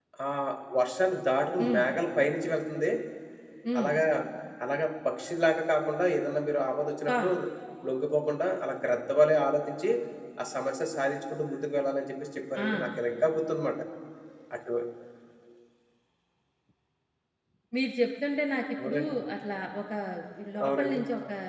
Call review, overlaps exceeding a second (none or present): none